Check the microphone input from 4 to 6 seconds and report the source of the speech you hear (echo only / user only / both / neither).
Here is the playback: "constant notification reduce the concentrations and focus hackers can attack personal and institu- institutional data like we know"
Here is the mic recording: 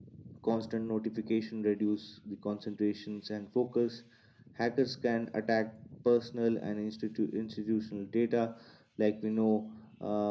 echo only